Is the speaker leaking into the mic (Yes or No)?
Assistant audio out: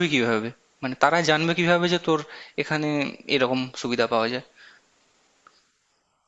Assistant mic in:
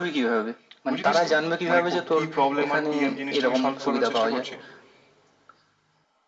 Yes